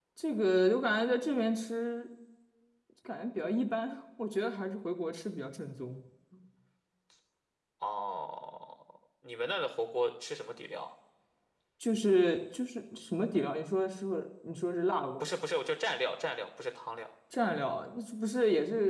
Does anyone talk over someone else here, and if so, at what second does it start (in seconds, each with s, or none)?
none